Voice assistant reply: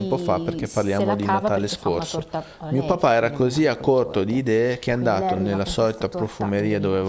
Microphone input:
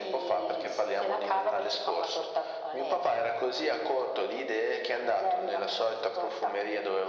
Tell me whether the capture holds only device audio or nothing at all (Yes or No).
Yes